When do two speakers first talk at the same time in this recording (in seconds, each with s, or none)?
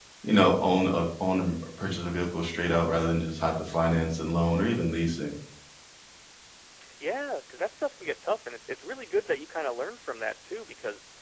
none